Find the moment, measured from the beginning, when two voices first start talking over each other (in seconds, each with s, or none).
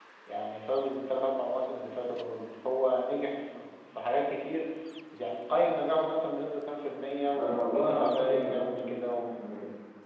7.3 s